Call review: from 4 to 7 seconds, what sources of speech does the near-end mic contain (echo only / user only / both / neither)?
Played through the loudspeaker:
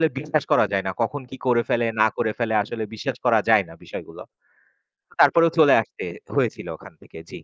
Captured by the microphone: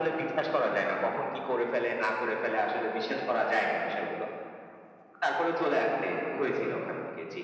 echo only